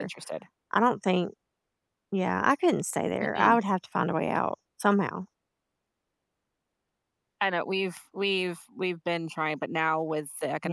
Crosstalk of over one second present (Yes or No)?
No